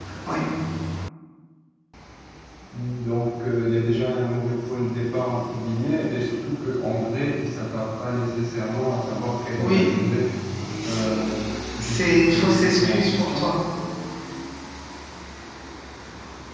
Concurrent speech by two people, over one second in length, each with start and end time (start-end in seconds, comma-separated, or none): 11.8-13.5